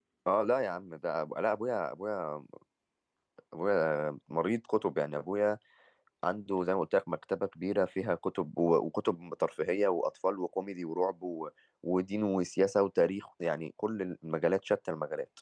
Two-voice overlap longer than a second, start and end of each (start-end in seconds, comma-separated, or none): none